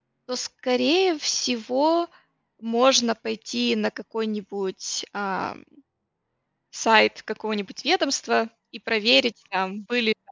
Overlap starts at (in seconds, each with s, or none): none